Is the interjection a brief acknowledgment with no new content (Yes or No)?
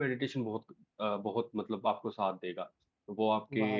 No